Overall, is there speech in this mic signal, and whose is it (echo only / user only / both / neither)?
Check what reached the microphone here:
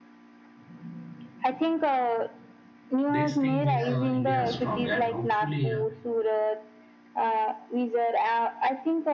both